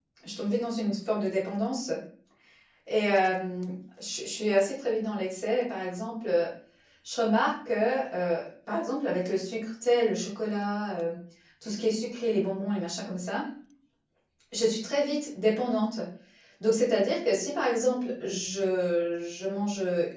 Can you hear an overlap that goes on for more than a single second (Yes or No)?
No